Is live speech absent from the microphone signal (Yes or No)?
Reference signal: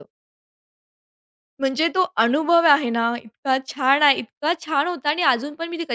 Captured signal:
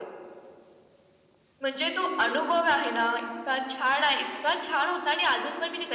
Yes